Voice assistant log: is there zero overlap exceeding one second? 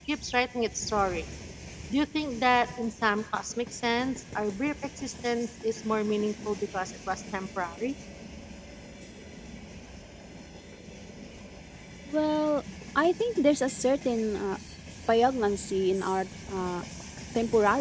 Yes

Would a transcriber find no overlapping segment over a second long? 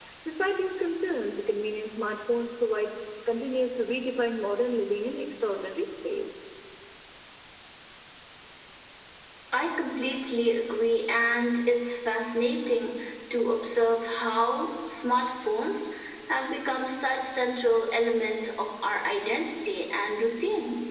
Yes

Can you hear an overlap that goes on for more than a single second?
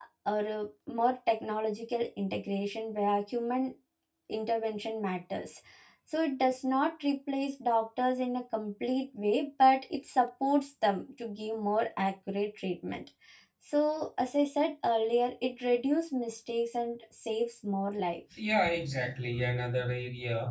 No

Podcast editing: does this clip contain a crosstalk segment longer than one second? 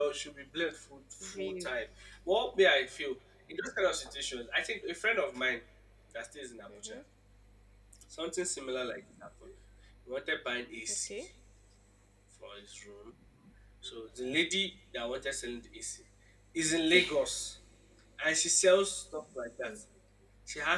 No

